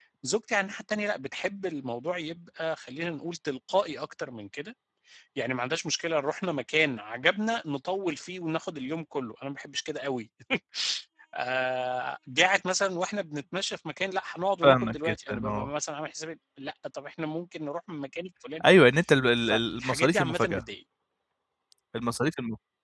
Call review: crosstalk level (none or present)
present